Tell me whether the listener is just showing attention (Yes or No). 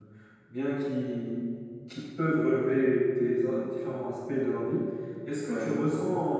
Yes